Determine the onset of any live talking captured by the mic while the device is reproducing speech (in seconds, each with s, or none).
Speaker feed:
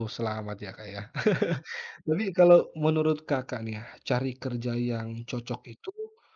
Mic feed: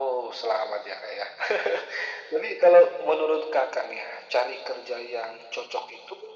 none